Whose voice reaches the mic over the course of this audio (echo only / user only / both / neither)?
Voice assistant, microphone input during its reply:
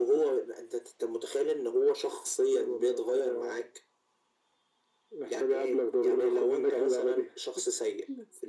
echo only